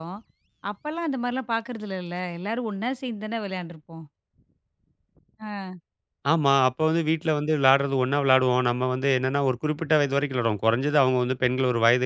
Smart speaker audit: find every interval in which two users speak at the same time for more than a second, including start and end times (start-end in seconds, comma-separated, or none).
none